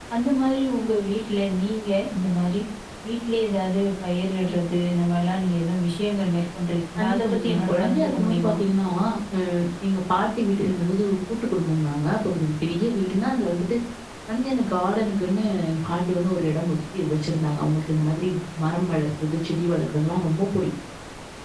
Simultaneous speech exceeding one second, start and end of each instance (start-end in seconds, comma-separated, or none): 7.0-8.5